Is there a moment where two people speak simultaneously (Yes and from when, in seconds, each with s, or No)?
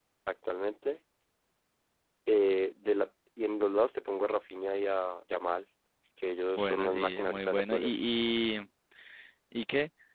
Yes, from 6.6 s